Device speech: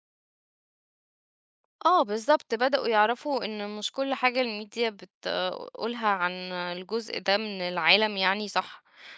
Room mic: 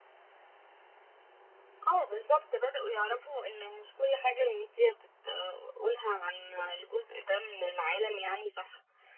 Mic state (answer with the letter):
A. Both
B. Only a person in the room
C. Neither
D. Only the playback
D